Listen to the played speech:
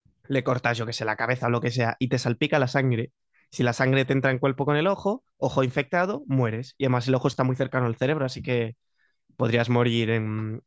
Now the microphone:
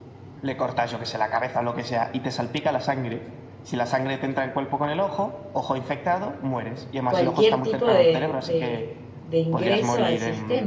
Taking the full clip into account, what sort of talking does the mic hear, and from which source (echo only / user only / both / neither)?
both